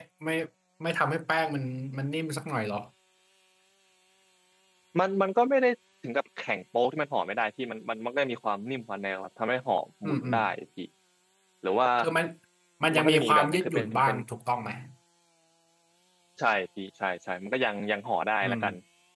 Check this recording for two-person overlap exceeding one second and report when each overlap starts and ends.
12.9-14.2

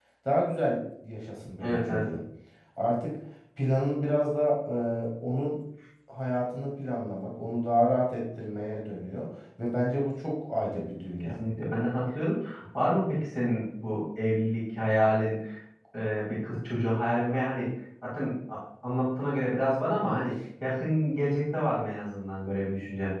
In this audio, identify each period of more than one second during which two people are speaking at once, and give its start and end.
none

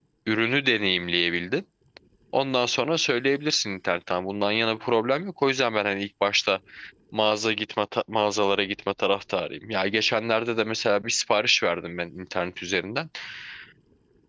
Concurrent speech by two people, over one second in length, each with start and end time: none

